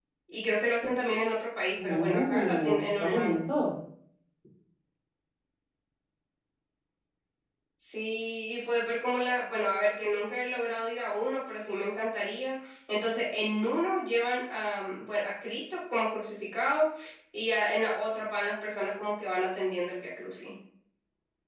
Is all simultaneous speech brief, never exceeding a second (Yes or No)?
No